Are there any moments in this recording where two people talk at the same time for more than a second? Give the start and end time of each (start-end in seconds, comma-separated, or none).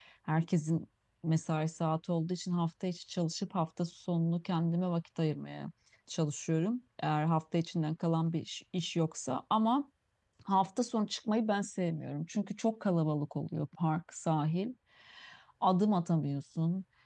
none